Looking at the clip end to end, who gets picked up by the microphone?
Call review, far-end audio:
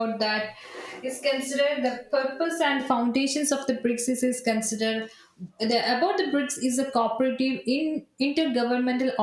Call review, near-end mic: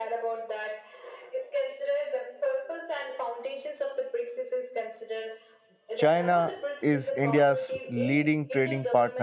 both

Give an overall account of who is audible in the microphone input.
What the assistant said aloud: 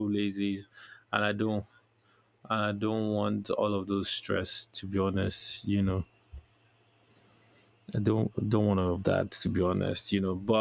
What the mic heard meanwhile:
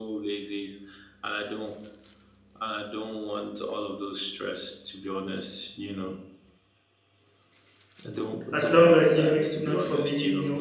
both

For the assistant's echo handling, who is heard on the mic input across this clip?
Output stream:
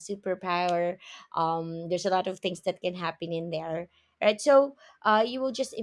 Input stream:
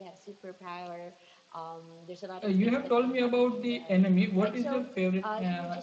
both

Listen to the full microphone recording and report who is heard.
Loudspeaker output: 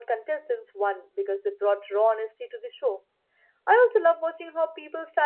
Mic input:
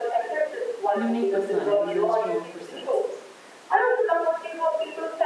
both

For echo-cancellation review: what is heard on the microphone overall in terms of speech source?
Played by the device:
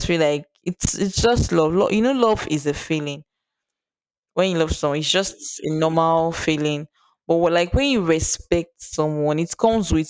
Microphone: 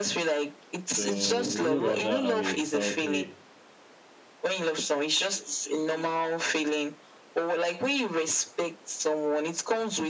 both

